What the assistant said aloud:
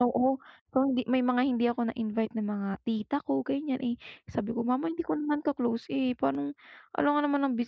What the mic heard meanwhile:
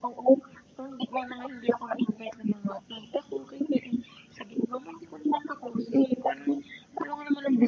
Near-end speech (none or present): none